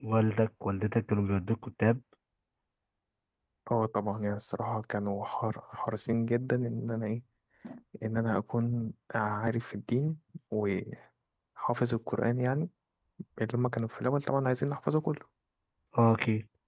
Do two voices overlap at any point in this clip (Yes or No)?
No